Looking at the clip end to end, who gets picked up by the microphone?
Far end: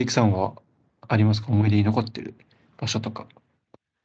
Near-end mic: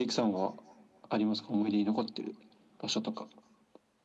echo only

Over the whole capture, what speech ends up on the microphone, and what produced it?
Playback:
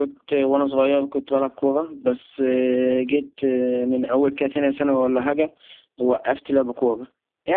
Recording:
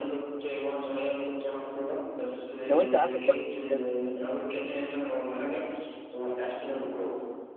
both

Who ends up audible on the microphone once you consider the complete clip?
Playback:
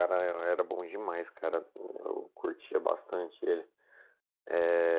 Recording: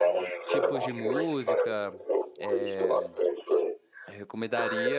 both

